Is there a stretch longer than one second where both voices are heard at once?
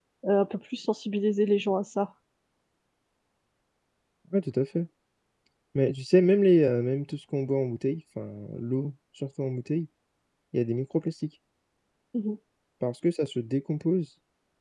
No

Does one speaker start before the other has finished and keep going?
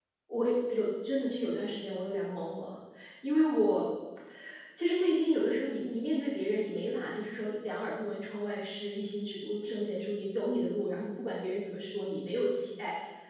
No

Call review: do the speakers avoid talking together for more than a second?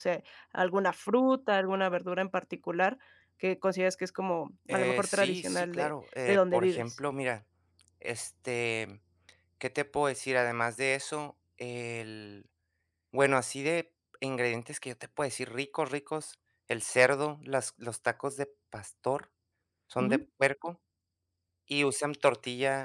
No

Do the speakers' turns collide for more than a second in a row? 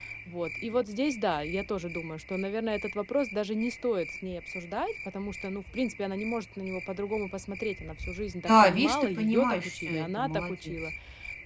Yes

